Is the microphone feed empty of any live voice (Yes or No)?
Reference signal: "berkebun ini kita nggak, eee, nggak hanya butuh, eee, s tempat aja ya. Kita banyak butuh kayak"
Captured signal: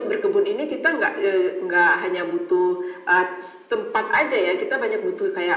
Yes